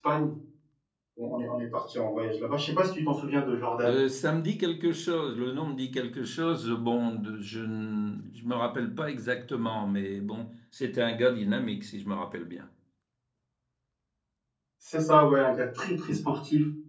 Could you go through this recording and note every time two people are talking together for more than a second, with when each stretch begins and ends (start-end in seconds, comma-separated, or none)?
none